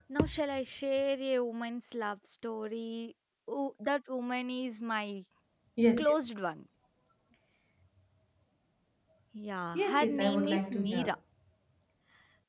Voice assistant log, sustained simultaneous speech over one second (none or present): present